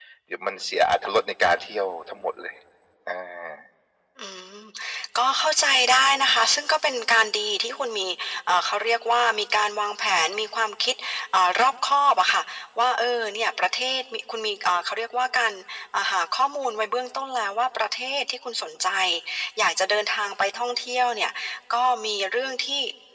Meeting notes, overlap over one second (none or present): none